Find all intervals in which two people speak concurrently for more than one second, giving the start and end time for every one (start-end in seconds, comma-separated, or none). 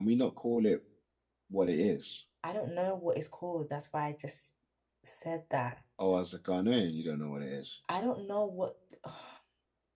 none